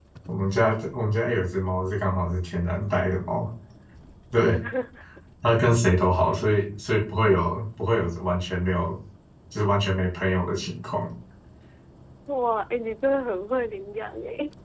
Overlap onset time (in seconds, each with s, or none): none